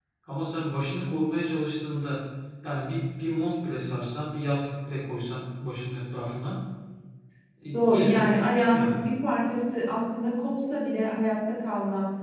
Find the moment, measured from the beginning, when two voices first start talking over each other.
7.7 s

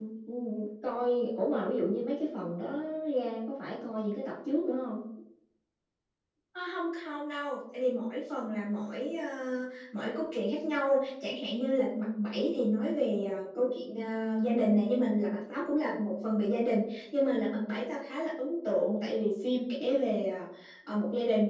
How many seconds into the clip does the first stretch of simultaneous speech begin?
none

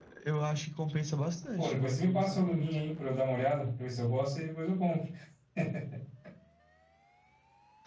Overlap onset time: 1.6 s

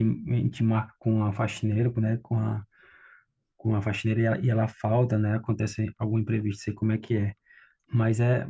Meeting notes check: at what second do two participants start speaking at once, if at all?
none

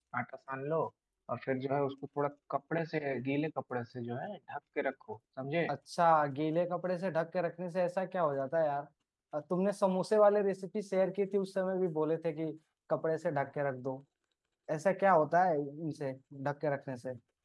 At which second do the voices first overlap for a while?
none

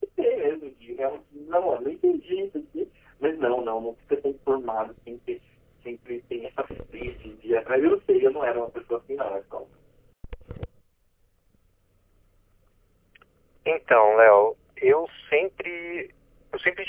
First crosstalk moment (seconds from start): none

